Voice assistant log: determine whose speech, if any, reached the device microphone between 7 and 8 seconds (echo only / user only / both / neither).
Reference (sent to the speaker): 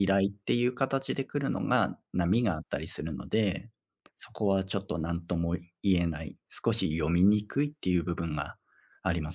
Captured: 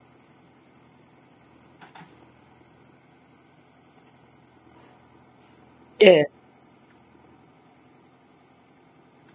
neither